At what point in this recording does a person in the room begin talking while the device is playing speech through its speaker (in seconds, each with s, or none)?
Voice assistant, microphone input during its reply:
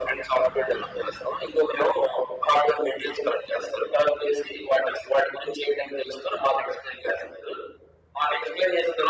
none